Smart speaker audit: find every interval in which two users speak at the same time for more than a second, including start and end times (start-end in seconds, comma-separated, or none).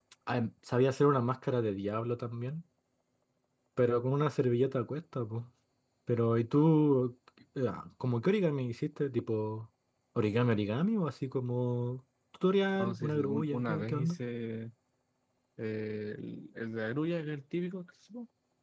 12.8-14.2